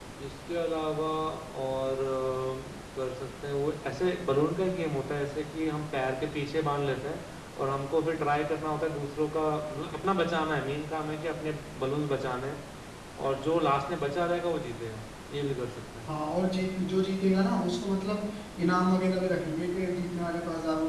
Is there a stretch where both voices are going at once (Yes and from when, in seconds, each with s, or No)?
No